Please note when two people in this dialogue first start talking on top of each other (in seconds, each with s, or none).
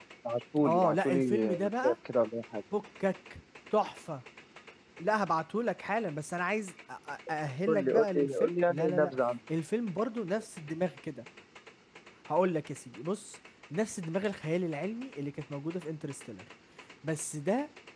0.7 s